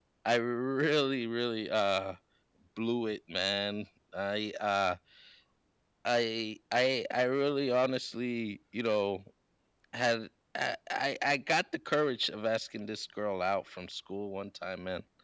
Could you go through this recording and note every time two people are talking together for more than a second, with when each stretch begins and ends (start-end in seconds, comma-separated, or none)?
none